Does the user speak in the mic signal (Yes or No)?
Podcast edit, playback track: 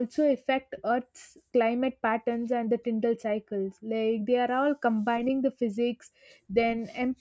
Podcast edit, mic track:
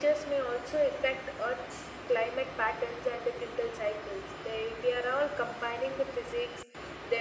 No